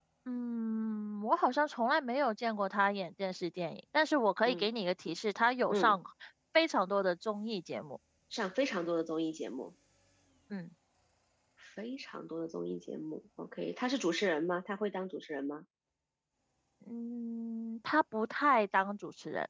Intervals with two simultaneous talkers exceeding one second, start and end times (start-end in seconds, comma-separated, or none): none